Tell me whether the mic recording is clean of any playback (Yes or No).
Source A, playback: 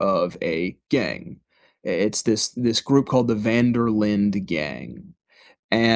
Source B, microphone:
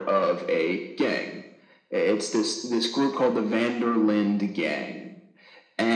No